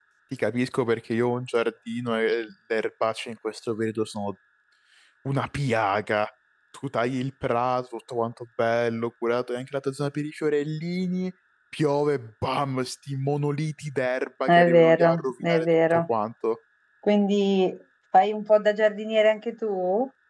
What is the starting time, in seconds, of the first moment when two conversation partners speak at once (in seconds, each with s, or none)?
14.5 s